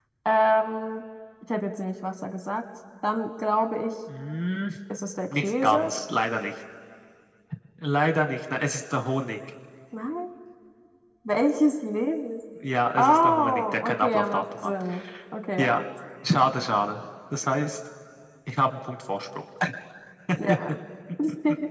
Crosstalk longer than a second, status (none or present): present